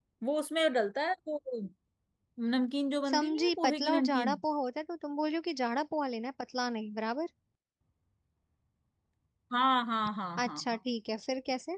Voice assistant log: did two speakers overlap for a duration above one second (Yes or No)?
Yes